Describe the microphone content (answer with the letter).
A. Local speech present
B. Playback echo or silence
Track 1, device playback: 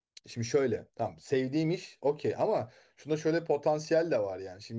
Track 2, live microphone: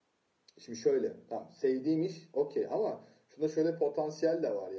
B